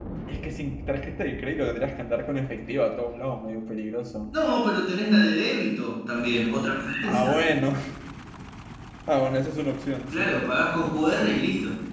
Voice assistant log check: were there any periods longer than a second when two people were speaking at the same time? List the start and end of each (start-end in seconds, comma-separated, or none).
none